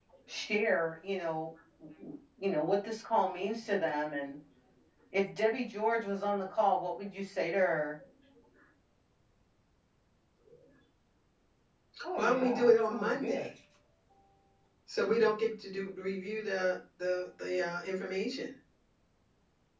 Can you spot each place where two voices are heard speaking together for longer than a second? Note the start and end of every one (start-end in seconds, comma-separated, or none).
12.3-13.5